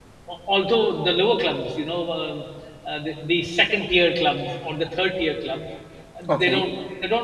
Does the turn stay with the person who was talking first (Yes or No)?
Yes